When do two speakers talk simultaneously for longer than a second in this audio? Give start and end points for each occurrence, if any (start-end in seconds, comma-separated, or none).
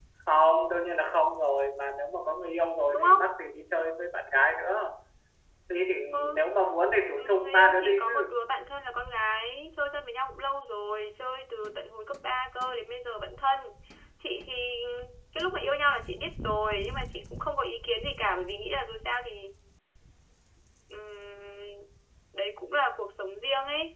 7.1-8.4